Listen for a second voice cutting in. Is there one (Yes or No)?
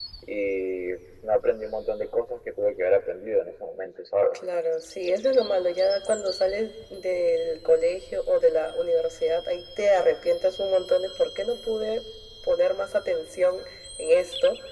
No